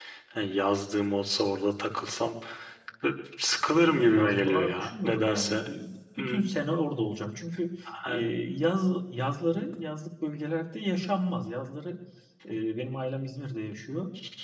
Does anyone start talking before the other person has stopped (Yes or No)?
Yes